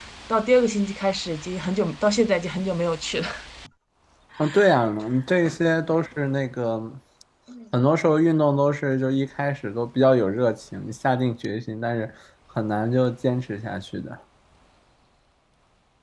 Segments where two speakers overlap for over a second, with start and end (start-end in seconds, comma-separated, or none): none